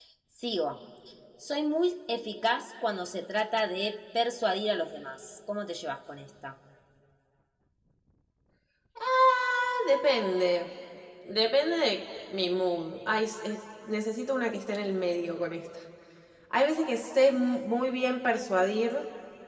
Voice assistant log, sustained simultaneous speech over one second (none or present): none